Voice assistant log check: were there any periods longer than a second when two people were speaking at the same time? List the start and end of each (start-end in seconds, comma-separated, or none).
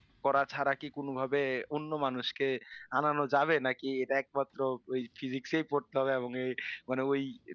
none